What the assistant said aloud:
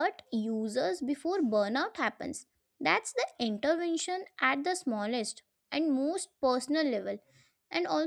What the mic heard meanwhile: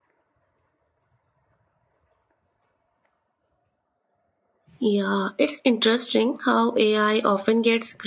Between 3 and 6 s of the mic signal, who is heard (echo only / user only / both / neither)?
user only